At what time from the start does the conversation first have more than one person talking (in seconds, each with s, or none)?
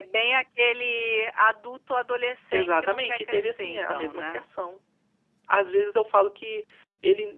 2.5 s